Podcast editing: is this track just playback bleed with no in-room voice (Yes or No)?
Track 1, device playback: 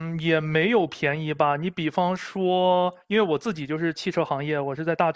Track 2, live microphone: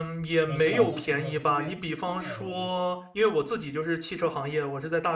No